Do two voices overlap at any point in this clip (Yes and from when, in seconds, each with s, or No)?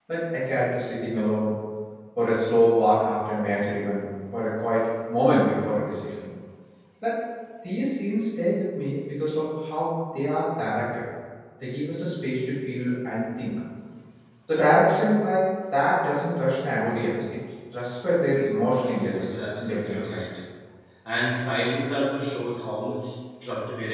Yes, from 18.9 s